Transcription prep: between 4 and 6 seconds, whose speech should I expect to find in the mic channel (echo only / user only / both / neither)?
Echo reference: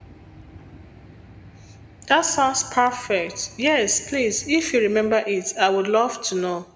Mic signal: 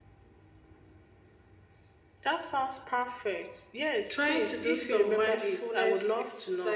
both